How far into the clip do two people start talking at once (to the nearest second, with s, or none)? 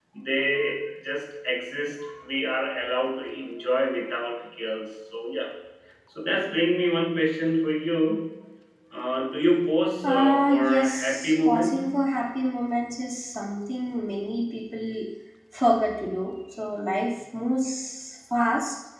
10 s